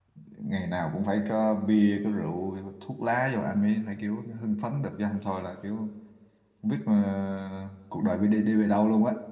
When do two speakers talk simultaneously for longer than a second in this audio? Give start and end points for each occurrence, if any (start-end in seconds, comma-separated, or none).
none